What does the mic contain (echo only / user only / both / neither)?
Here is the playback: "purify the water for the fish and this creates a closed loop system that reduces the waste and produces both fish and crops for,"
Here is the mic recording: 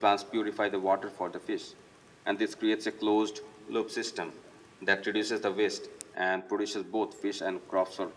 echo only